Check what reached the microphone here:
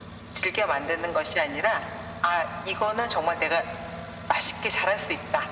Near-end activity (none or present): none